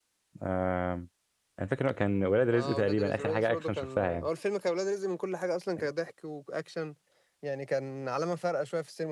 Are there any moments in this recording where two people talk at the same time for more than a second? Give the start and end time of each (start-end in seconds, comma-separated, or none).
2.5-4.3